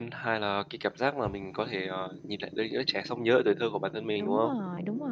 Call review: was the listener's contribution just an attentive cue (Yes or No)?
No